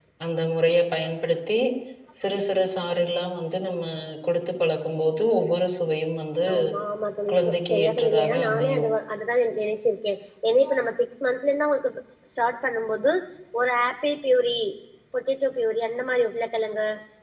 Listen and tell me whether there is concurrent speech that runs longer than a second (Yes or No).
Yes